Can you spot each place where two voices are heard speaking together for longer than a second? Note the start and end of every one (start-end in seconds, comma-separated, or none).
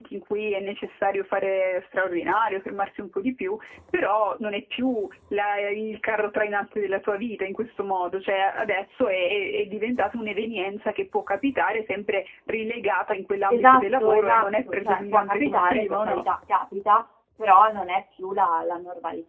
13.5-16.2